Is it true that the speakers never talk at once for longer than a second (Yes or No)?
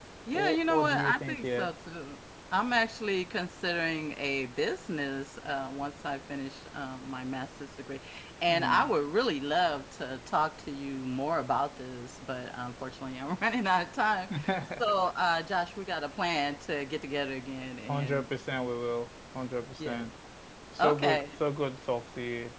No